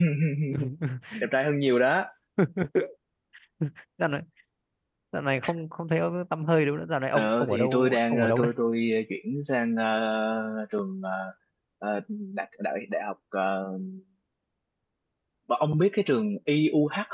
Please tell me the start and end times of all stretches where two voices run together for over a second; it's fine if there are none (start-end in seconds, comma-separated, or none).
7.1-8.5